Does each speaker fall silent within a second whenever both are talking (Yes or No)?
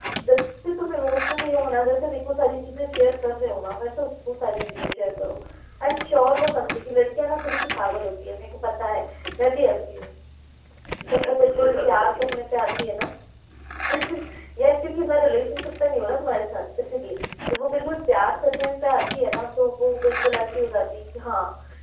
No